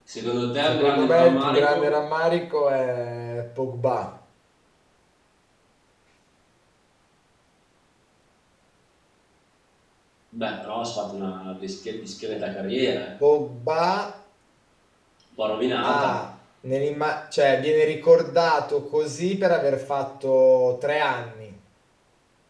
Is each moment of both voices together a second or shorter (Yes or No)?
No